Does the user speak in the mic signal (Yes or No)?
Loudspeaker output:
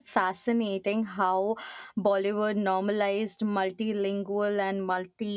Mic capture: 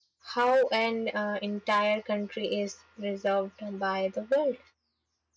Yes